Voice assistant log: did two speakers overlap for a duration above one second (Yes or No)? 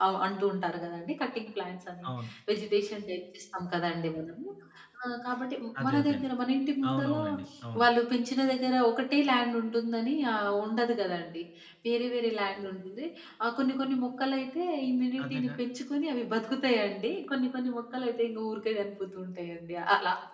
No